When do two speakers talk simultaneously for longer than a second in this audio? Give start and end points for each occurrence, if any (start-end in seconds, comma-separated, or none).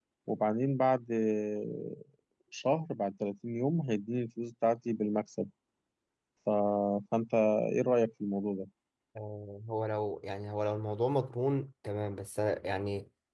none